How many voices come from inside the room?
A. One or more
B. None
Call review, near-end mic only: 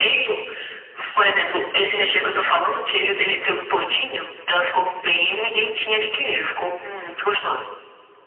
B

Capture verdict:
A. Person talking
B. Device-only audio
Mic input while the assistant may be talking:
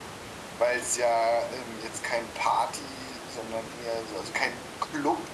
B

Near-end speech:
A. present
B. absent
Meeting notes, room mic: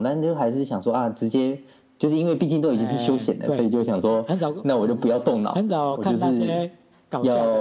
B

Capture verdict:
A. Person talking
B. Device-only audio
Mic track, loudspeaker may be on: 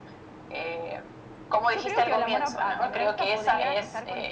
A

